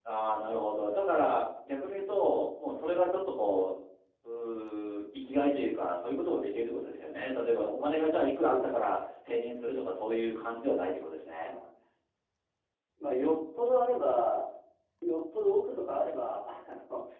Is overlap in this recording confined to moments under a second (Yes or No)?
Yes